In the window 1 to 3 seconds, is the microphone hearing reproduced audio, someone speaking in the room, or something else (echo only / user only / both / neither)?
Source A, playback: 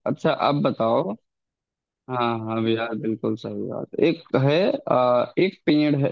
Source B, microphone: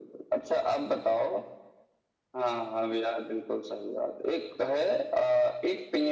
echo only